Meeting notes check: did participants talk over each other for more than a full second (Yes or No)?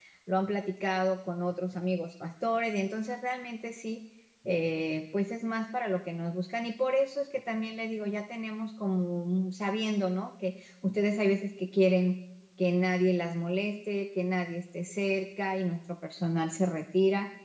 No